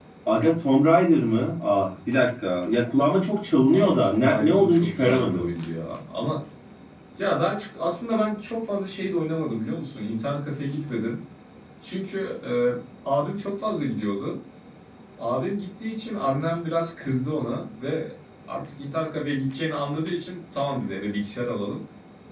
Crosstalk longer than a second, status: present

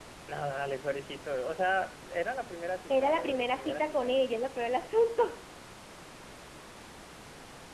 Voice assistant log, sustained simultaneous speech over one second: present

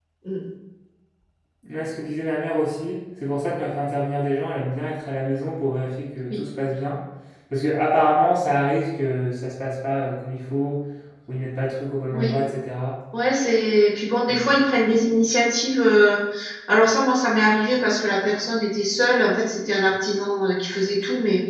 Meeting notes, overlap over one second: none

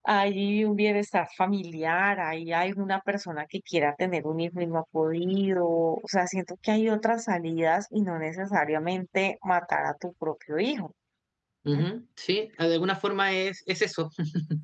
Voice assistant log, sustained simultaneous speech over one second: none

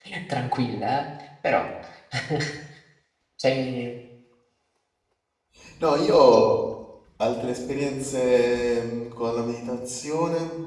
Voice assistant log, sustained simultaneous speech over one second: none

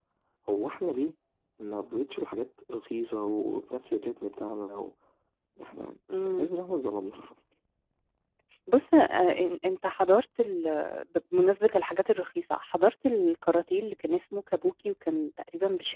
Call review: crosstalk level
none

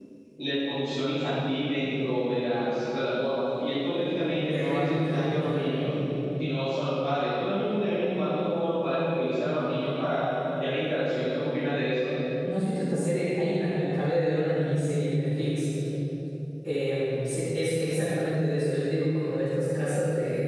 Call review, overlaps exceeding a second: present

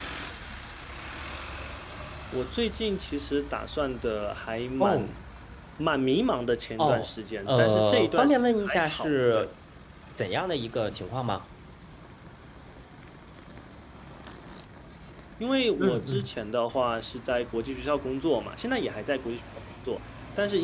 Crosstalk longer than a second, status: present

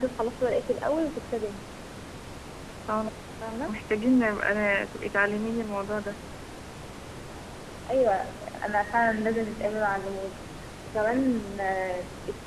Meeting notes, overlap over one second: none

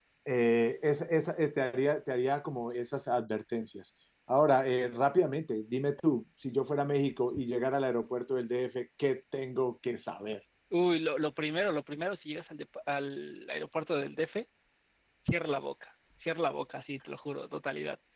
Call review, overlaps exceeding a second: none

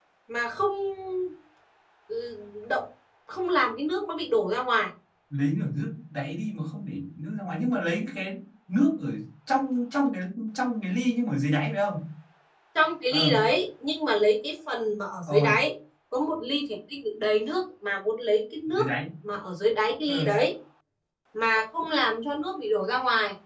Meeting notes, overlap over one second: none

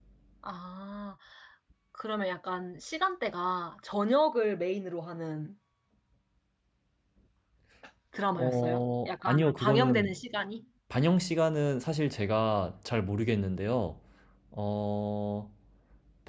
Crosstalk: present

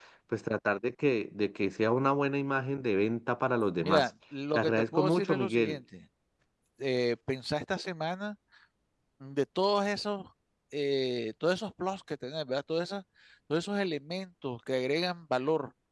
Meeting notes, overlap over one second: present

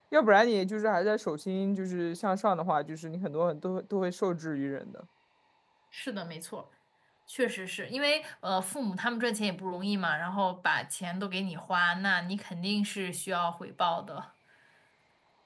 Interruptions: none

